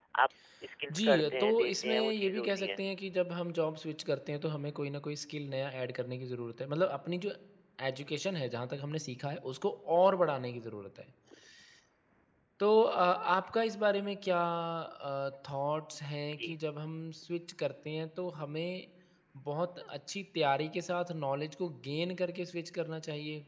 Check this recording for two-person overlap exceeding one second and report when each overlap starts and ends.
0.9-2.8

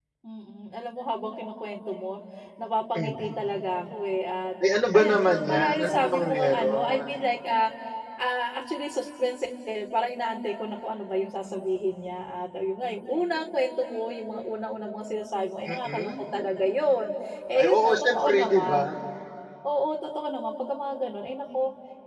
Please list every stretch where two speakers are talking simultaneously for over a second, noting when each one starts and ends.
5.0-7.1, 17.6-18.8

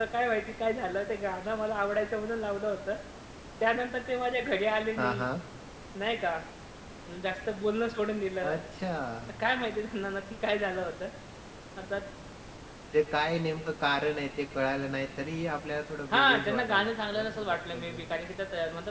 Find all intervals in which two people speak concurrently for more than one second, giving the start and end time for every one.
16.1-18.0

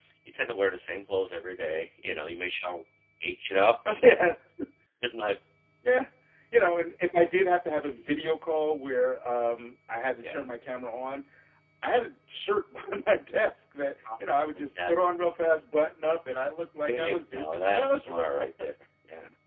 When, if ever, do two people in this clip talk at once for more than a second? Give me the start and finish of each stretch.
16.9-18.2

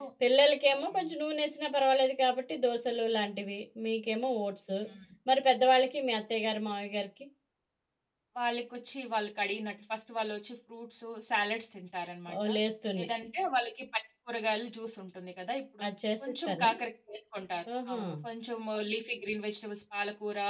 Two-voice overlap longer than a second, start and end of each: none

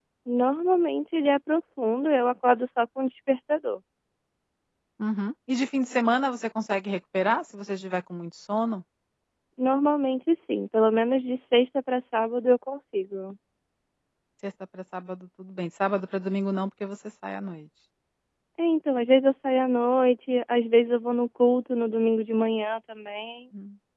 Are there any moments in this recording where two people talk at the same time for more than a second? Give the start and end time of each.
none

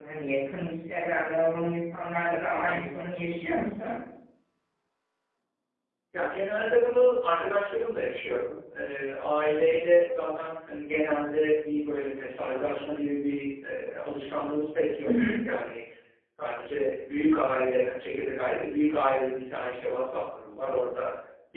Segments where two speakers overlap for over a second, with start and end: none

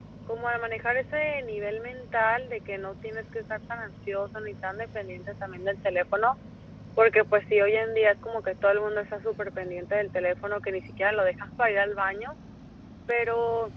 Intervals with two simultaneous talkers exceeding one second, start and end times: none

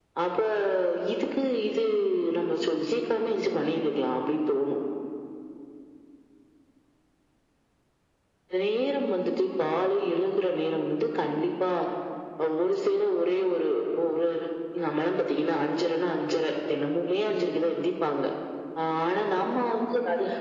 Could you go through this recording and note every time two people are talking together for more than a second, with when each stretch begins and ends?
none

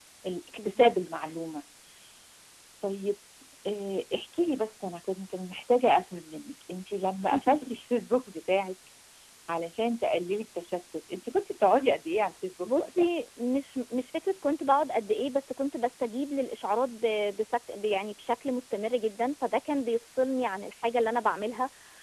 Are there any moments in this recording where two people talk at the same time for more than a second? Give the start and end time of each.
none

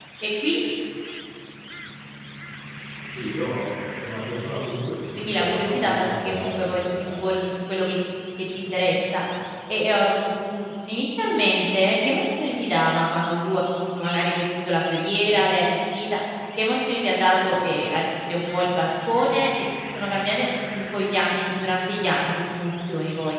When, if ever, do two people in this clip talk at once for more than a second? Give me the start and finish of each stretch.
5.2-7.1

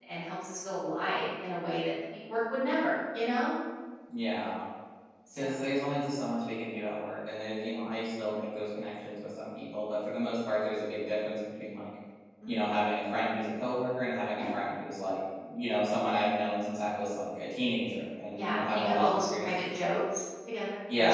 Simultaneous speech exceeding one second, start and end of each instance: 18.4-19.6

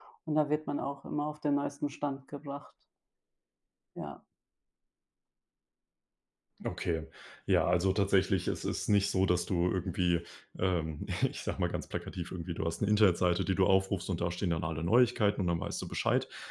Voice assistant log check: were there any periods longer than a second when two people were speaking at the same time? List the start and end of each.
none

